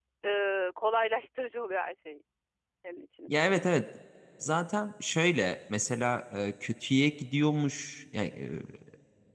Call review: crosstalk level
none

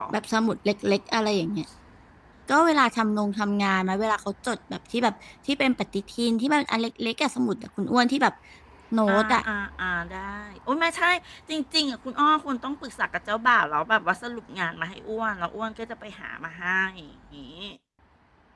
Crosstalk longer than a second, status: none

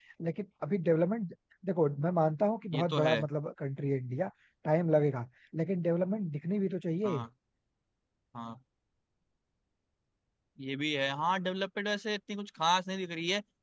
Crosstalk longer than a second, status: none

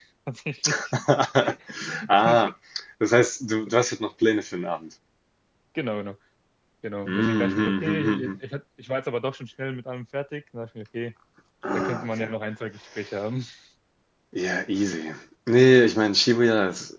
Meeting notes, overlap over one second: present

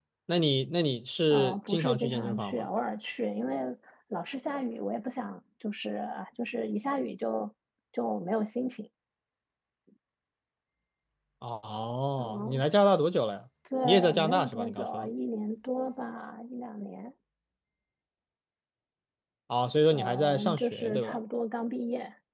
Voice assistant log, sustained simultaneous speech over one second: present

